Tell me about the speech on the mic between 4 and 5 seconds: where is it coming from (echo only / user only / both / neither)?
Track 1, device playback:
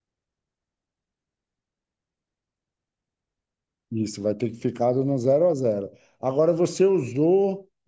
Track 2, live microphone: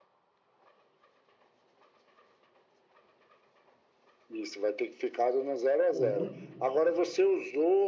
echo only